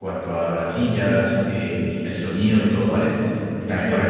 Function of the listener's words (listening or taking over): listening